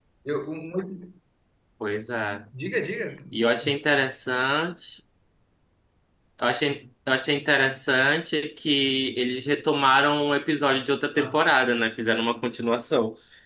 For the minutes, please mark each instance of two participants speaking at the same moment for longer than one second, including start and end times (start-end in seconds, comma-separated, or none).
none